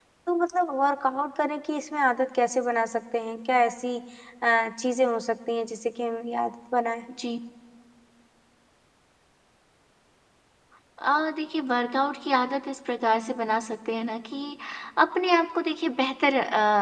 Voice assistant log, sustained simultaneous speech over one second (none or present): none